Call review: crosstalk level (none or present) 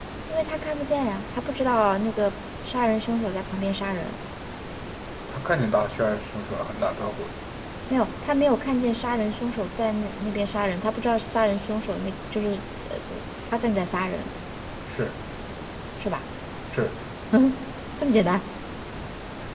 none